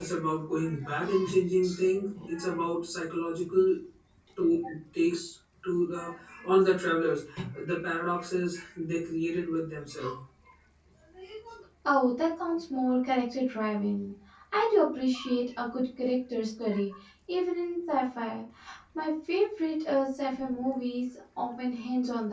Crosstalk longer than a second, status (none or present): none